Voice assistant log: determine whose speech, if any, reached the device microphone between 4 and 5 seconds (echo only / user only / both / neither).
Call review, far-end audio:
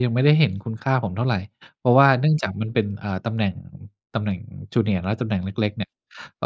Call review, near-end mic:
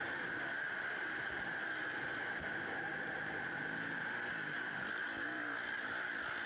neither